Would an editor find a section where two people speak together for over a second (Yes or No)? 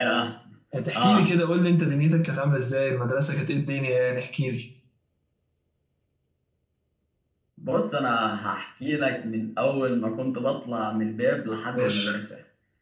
No